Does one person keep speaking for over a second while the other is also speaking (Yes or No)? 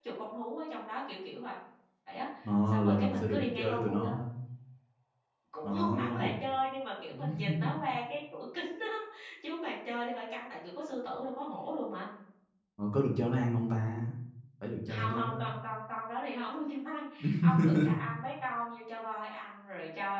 Yes